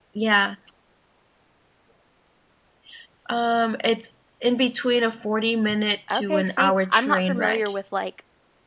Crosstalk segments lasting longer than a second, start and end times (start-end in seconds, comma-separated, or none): 6.1-7.7